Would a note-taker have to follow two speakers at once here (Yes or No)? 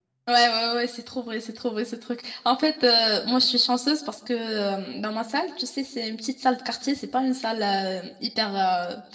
No